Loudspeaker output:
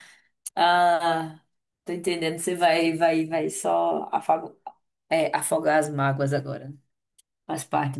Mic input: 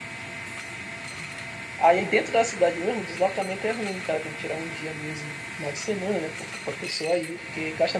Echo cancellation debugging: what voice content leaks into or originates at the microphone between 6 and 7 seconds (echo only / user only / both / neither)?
user only